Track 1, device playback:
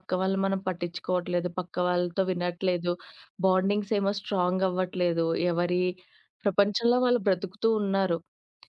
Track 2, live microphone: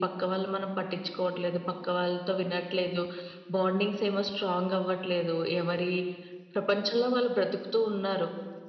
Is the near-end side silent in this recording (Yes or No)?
Yes